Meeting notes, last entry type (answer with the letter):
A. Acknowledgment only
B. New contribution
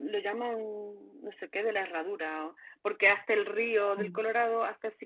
A